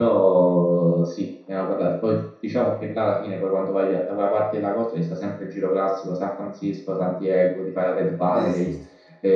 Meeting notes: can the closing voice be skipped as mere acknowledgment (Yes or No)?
Yes